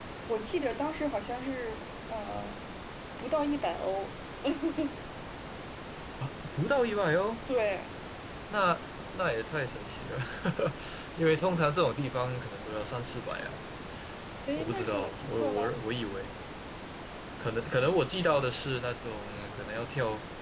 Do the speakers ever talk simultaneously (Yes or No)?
Yes